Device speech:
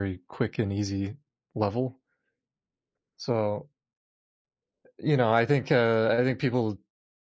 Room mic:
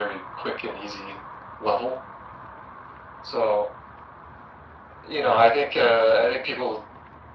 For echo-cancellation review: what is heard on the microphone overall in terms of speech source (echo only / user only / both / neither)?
echo only